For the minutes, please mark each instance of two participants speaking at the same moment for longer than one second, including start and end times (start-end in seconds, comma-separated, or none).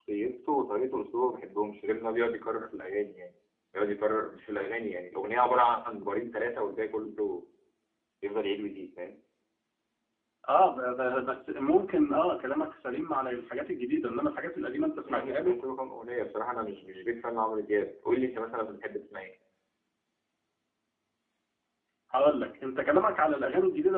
none